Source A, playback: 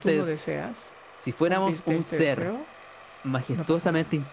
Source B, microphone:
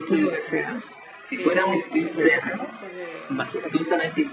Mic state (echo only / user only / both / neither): both